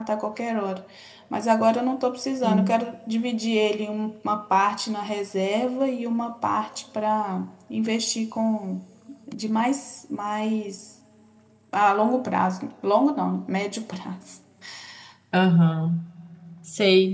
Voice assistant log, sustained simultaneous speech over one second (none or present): none